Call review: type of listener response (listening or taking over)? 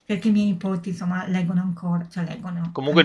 taking over